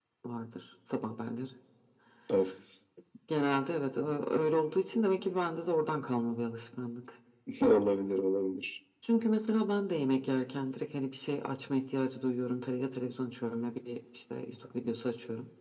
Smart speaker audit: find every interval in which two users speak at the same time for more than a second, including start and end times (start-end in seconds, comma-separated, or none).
none